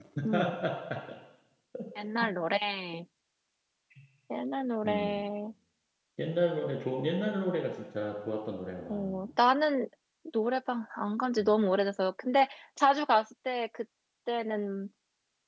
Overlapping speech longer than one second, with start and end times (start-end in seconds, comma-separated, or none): none